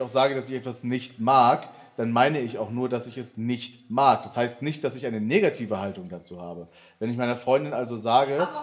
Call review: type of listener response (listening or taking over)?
taking over